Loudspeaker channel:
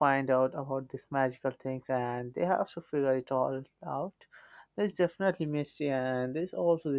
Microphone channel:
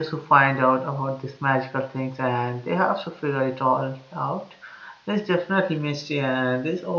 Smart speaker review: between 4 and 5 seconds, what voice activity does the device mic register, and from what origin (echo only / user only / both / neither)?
echo only